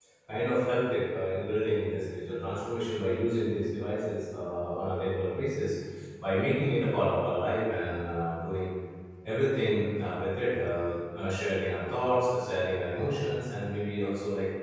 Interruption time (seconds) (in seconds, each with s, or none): none